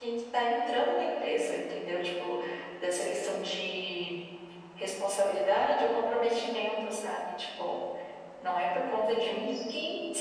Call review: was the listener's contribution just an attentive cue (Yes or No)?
Yes